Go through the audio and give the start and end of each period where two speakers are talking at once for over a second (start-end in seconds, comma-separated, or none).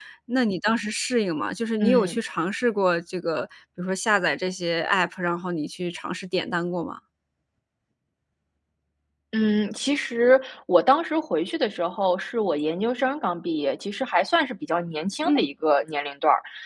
none